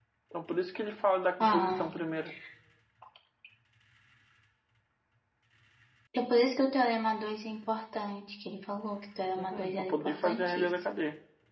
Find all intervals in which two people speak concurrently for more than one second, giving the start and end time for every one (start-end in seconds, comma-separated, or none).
9.4-10.8